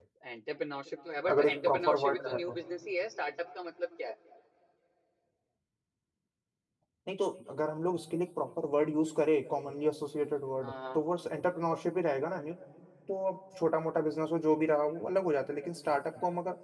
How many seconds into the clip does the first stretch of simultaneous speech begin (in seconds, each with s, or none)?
1.3 s